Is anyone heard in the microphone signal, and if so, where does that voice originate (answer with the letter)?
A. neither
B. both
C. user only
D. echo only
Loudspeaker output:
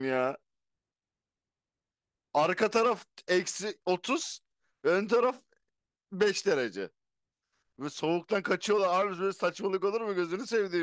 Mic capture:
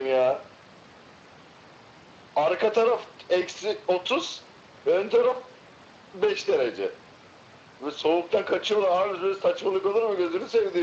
D